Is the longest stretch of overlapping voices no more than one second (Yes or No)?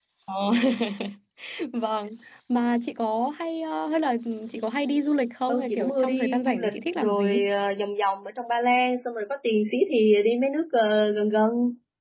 No